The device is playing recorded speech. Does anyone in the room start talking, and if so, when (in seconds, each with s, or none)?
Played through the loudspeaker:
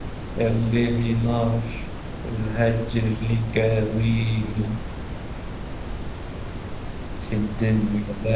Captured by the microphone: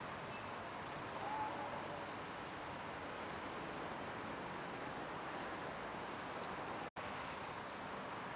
none